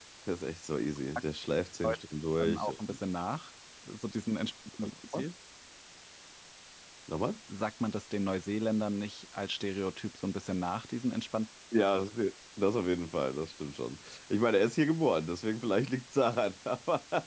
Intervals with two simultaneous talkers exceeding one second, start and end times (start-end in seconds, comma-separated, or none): none